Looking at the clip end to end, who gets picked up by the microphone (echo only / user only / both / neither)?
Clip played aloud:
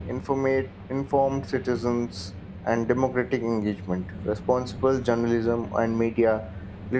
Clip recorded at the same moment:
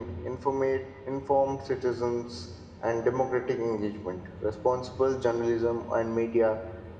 echo only